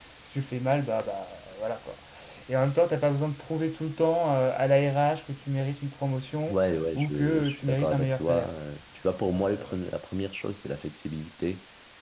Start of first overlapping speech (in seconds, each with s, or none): 7.0 s